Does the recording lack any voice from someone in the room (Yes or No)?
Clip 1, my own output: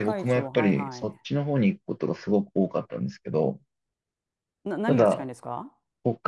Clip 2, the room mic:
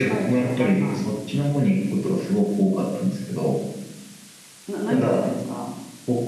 Yes